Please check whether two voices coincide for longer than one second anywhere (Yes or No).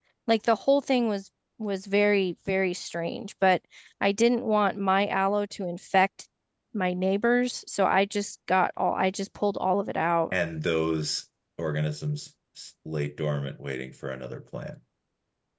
No